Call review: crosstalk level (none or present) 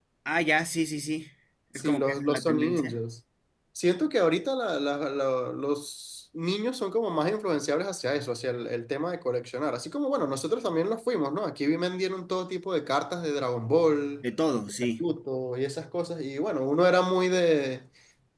present